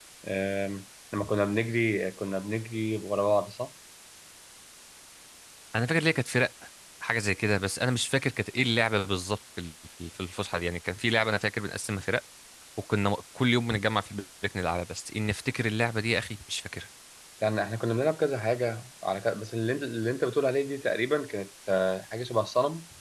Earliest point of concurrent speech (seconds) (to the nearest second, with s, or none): none